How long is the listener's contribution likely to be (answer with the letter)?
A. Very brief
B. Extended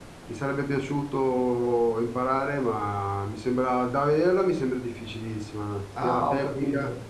B